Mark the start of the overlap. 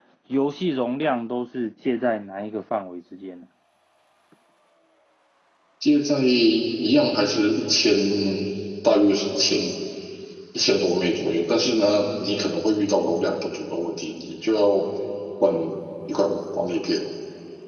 none

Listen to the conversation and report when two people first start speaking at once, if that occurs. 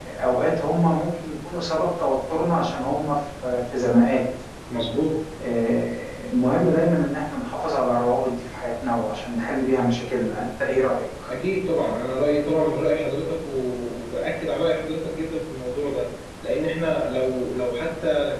none

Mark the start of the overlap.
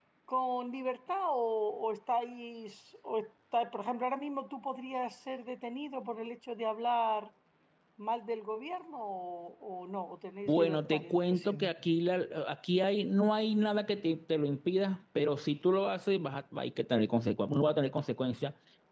10 s

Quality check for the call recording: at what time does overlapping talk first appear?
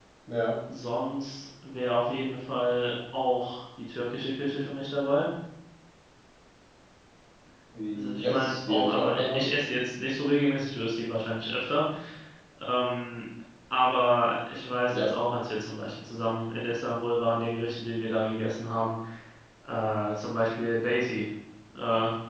8 s

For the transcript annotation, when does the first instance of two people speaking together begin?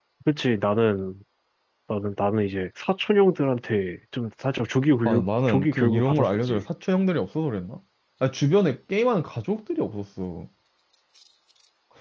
5 s

